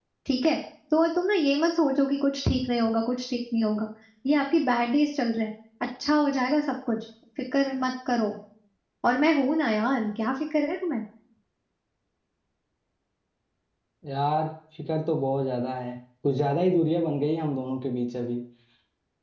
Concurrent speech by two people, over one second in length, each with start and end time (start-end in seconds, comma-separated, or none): none